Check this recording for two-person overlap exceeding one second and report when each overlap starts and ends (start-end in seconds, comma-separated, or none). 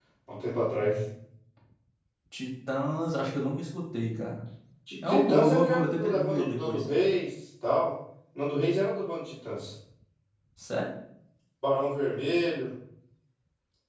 5.0-6.8